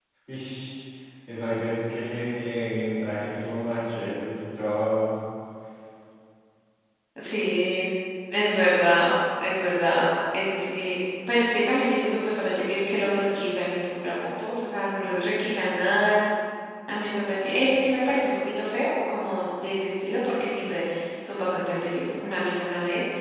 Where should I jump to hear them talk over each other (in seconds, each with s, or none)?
none